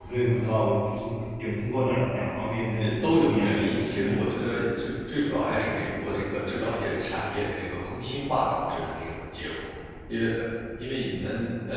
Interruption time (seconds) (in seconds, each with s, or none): 2.8 s